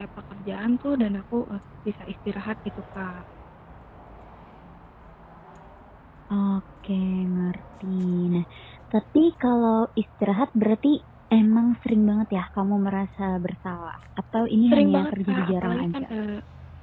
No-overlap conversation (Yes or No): No